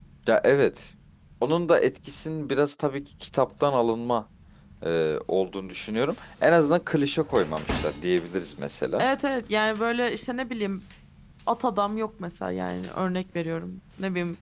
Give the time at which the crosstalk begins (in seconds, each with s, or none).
none